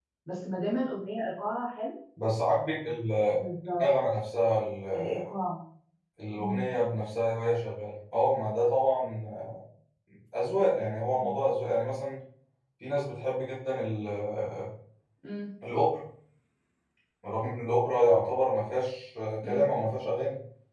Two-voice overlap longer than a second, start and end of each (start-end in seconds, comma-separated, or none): none